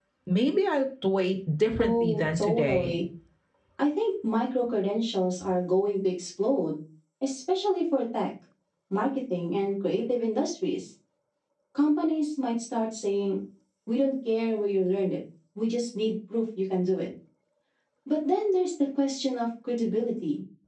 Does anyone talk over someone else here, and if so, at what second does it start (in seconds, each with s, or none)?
1.8 s